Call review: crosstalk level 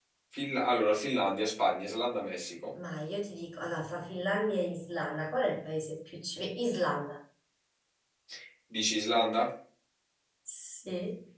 none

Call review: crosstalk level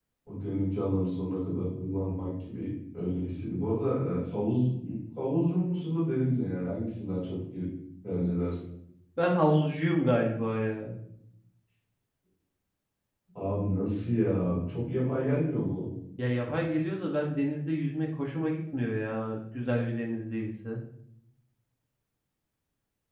none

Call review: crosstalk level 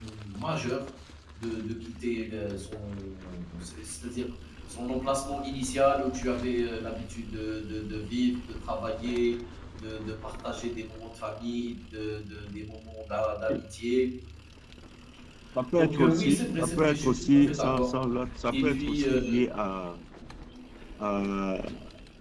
present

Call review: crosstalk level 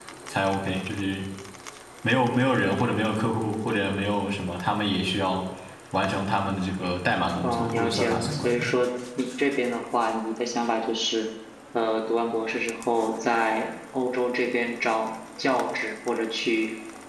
present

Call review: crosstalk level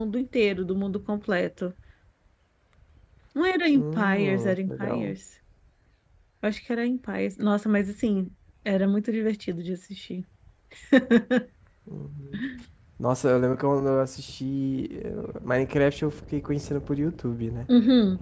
present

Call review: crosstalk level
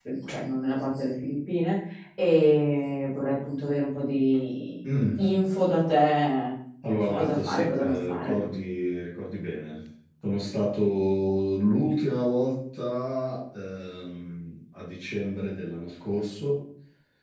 present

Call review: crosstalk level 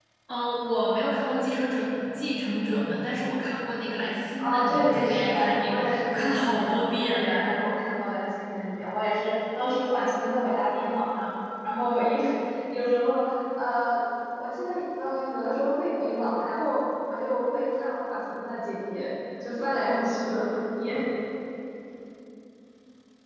present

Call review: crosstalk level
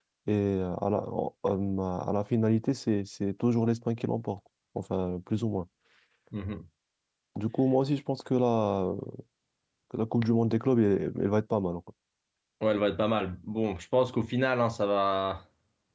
none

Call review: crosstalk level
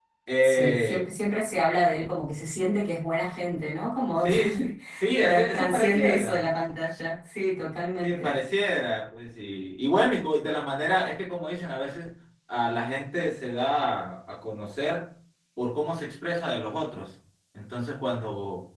present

